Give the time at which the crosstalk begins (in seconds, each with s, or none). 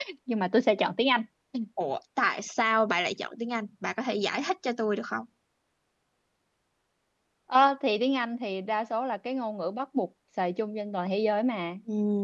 none